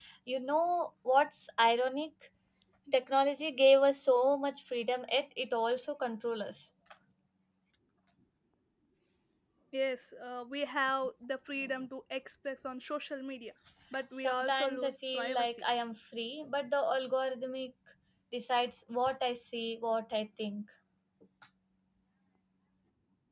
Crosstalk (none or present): present